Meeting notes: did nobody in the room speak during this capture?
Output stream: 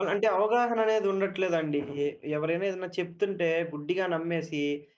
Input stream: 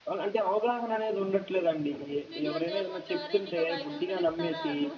No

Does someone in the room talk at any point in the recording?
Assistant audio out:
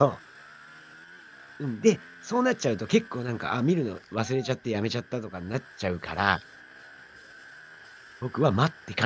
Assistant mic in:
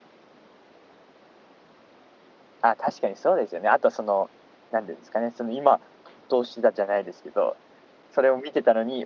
Yes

